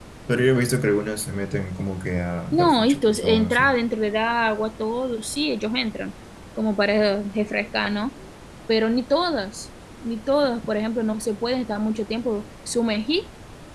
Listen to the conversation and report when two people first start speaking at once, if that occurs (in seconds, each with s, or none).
2.5 s